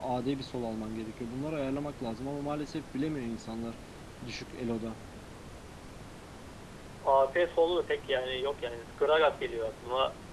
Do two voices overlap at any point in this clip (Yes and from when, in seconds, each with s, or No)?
No